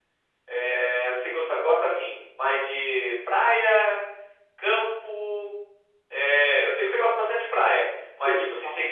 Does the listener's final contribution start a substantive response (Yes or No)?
No